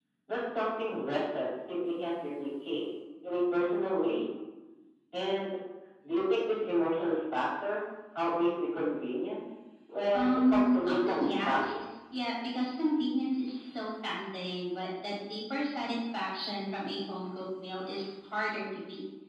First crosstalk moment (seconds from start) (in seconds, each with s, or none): 10.1 s